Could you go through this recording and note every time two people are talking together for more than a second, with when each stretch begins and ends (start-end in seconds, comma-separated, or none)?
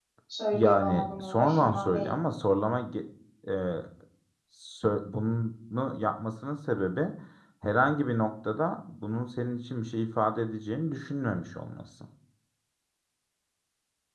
0.5-2.2